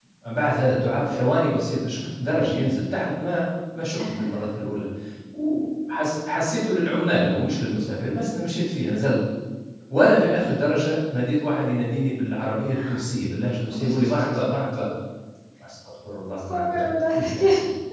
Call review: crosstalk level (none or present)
present